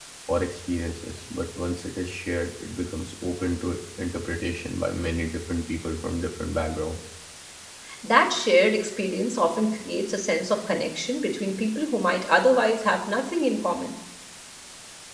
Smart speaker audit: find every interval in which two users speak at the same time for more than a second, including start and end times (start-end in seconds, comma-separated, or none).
none